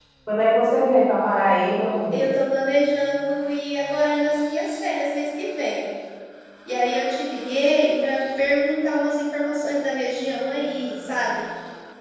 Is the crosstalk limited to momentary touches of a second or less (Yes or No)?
Yes